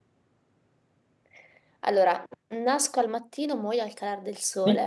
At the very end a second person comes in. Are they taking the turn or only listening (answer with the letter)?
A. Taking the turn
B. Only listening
A